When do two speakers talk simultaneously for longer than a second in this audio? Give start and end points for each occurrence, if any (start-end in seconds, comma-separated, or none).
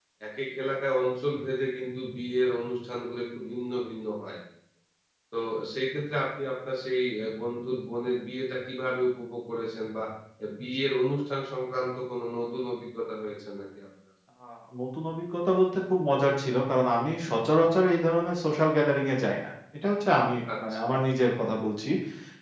none